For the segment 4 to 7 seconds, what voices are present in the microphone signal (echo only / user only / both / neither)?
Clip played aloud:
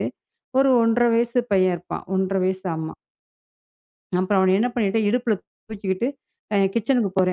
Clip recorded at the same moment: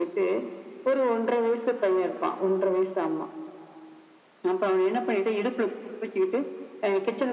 echo only